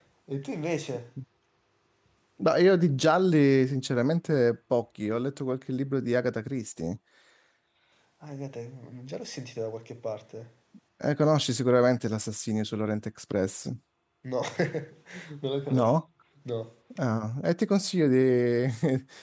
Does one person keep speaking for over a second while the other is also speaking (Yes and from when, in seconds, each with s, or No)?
No